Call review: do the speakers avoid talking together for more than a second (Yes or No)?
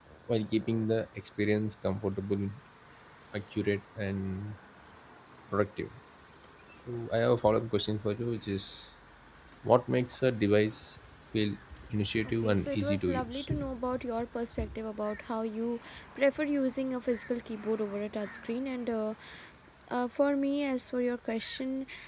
No